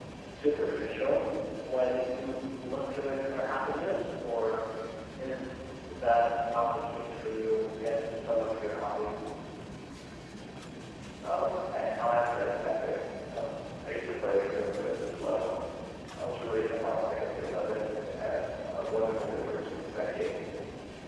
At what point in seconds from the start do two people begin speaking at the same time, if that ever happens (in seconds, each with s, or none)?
none